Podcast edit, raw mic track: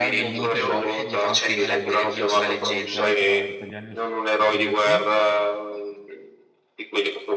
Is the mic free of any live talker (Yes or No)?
No